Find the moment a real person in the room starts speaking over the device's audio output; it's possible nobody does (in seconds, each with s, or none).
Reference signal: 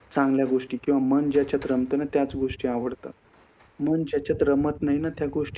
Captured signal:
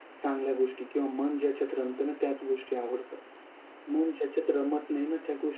none